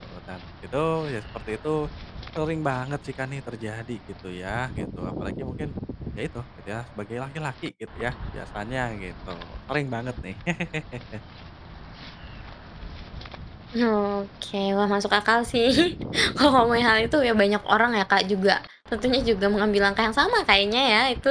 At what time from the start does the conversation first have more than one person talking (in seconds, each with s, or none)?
none